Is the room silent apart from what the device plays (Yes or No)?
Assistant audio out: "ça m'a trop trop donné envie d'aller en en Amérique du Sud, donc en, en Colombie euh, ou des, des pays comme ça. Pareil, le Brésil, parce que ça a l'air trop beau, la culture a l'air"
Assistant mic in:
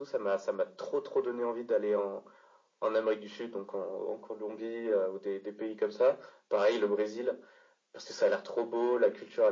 Yes